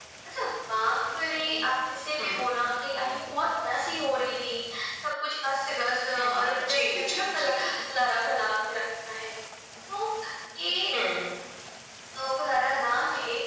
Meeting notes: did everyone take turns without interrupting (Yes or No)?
No